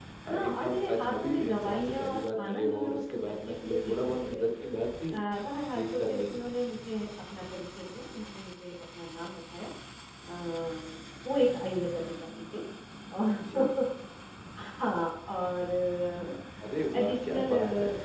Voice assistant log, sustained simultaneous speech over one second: present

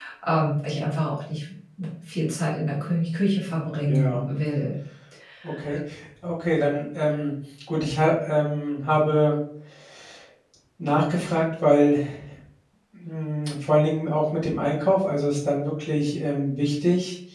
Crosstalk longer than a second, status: none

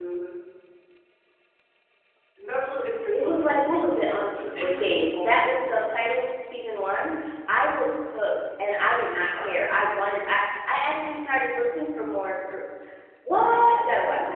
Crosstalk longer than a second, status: present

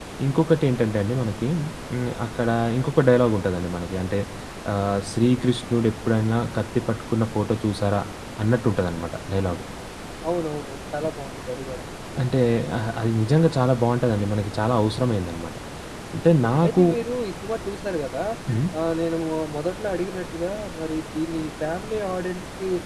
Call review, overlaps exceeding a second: none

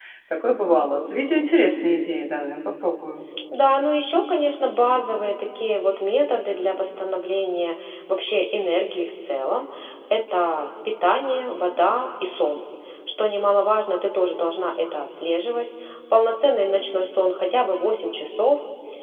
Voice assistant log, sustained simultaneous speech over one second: none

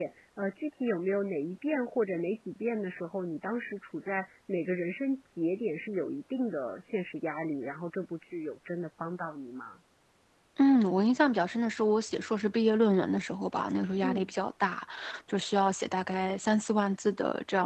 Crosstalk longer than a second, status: none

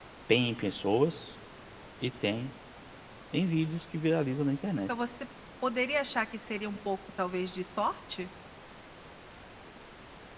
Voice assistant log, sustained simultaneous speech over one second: none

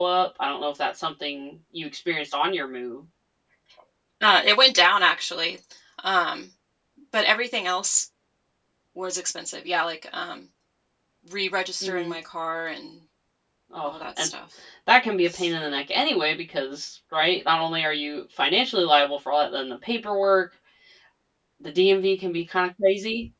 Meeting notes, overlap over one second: none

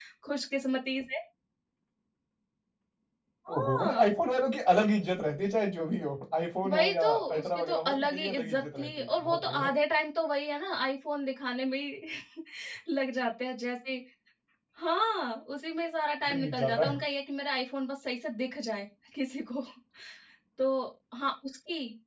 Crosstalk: present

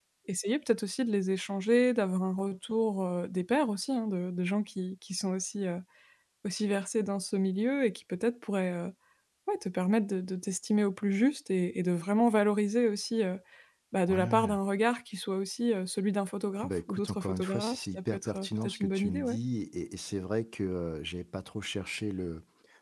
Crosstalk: present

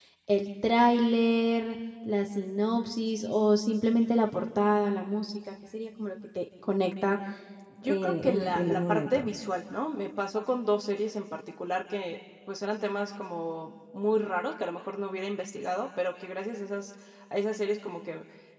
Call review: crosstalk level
present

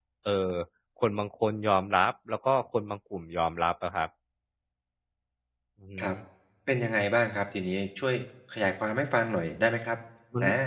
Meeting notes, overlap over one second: none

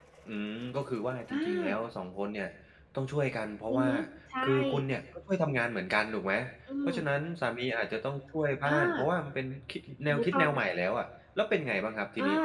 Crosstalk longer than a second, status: none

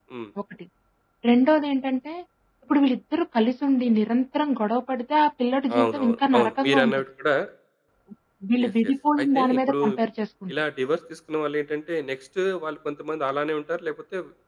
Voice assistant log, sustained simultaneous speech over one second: present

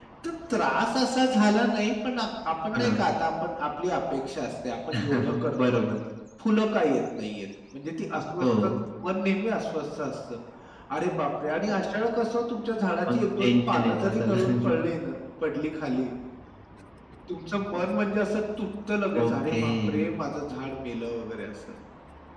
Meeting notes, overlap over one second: present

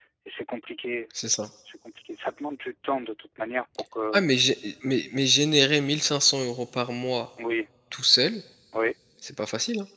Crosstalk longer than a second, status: none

